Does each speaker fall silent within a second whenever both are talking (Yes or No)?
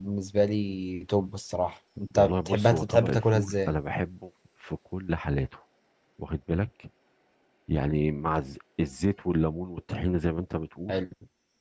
No